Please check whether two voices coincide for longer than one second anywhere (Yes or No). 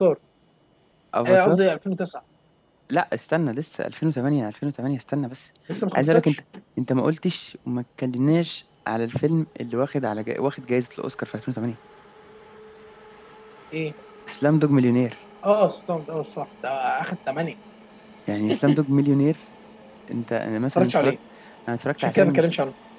No